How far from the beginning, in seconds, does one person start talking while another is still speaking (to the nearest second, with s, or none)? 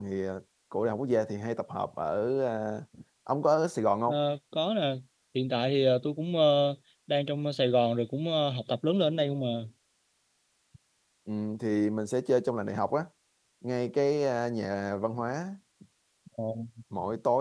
none